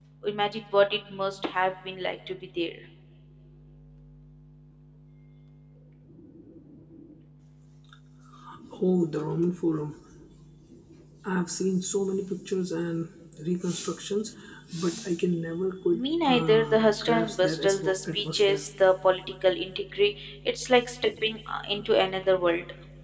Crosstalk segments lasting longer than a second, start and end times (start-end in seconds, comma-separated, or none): 15.9-18.6